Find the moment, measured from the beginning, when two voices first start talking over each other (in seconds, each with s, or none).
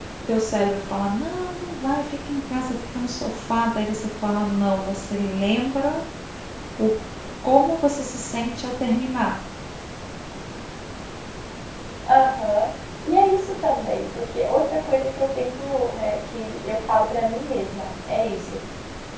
none